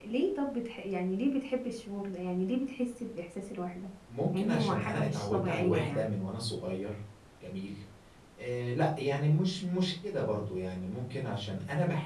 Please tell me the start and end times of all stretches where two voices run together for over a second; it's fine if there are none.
4.3-6.1

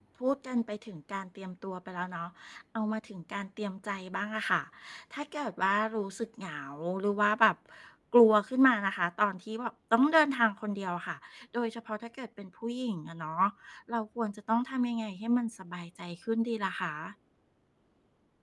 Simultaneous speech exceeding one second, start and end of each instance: none

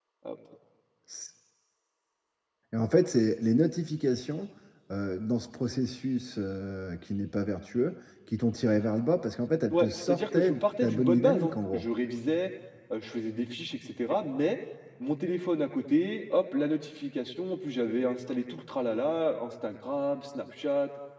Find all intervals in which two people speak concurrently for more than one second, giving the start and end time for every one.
9.7-11.8

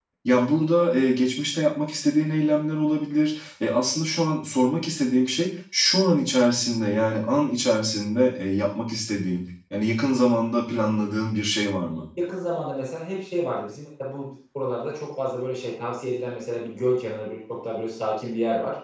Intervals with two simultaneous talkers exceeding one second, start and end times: none

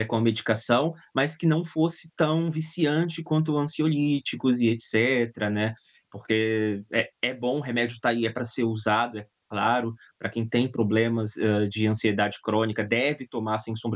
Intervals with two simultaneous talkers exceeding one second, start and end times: none

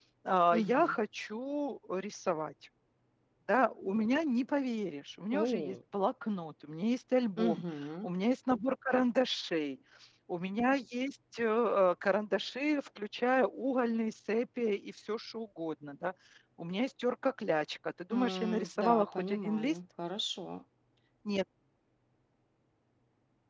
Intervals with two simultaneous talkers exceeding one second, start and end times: 18.1-19.7

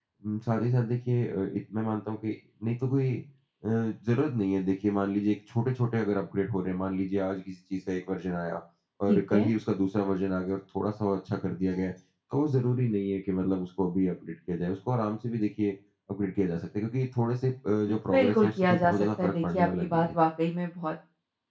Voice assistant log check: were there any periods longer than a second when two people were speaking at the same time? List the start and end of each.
17.9-20.2

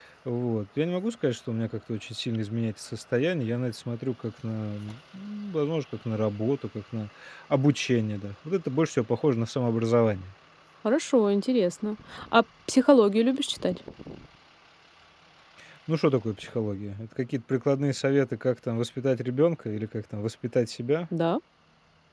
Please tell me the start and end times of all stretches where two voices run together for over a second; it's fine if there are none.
none

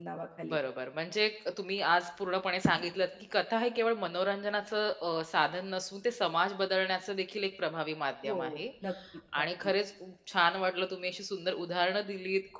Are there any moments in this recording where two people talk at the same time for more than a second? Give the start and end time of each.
none

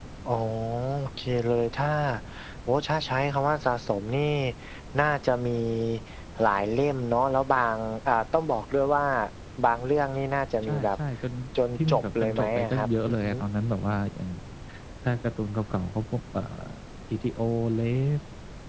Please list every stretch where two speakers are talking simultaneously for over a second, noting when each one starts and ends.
11.9-13.4

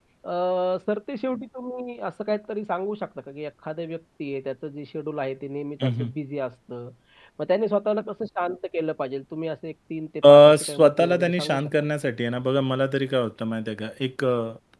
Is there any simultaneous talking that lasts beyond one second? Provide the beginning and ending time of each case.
10.3-11.7

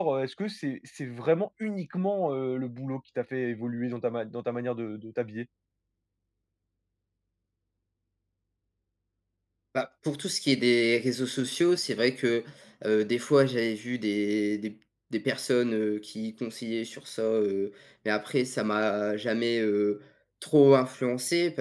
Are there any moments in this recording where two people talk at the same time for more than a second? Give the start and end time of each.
none

